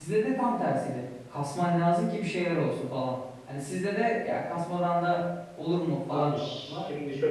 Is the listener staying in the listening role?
No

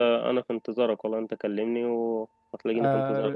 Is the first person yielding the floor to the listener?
Yes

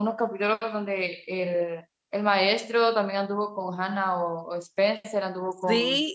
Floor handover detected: Yes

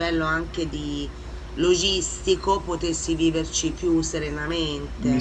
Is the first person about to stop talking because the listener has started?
Yes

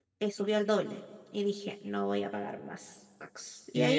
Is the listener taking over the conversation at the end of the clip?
Yes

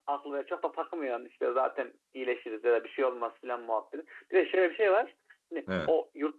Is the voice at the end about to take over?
No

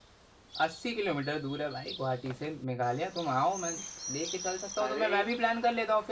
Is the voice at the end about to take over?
No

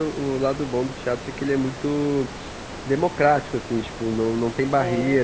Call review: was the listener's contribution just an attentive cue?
Yes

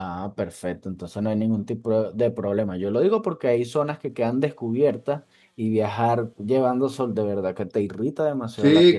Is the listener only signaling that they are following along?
No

